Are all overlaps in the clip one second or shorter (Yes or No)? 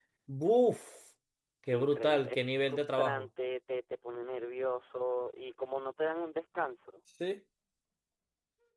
No